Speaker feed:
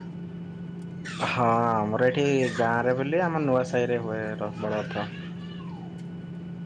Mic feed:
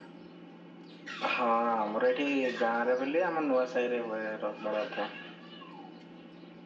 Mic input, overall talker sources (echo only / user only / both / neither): echo only